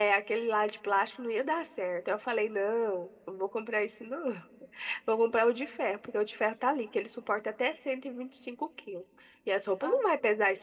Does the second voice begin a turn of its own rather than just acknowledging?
No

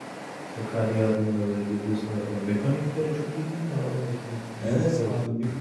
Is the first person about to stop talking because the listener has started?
Yes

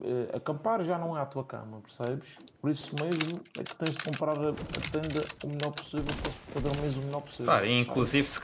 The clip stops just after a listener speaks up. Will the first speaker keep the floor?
No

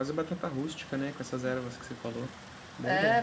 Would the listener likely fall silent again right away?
No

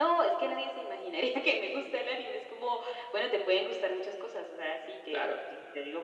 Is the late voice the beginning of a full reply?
No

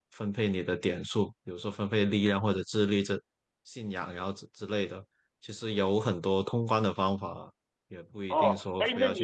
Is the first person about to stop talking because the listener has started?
Yes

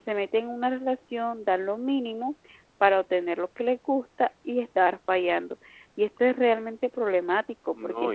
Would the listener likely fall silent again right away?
No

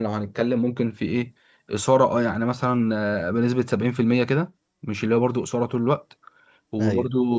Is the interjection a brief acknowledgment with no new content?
Yes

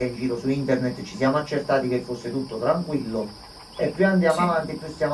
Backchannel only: Yes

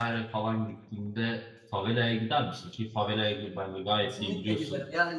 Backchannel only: No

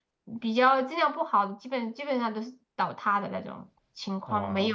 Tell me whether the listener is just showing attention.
Yes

